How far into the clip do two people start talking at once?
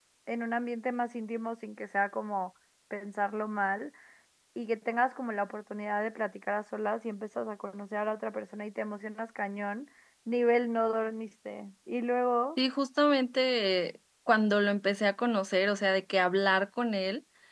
none

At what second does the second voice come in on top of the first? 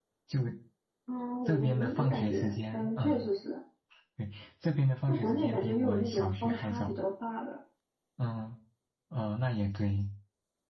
1.4 s

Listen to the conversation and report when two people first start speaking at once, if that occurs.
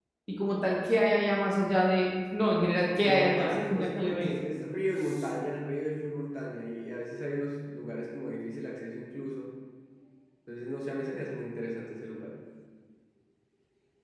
3.0 s

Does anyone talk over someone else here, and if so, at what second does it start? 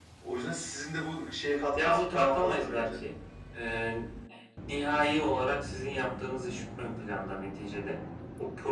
1.8 s

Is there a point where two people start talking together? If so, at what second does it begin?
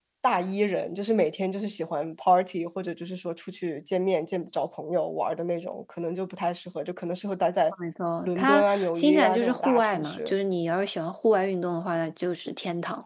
8.2 s

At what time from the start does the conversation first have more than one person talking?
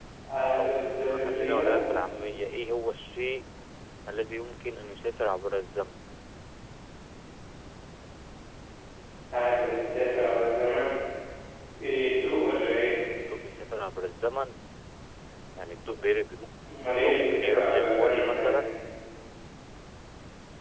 0.6 s

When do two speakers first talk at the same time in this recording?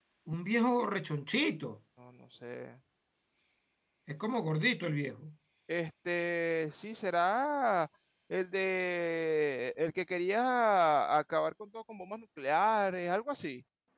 none

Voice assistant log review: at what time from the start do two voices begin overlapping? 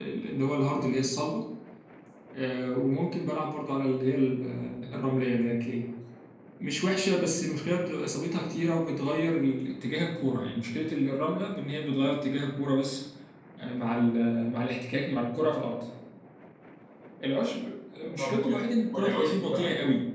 18.2 s

